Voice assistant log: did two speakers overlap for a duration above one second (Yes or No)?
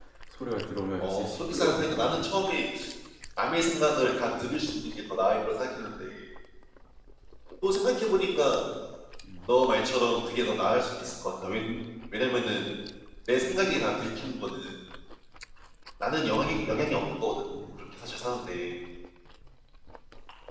Yes